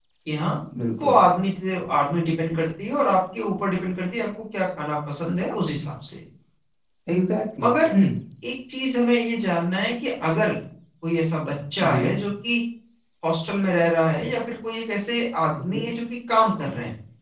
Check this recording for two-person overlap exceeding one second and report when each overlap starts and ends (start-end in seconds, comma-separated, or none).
none